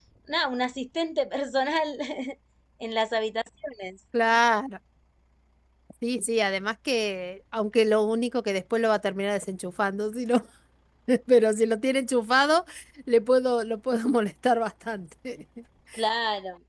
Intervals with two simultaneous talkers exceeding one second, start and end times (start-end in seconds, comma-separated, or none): none